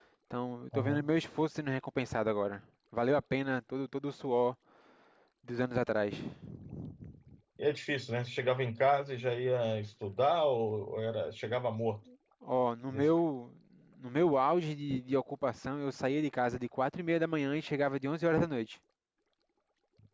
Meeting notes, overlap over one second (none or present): none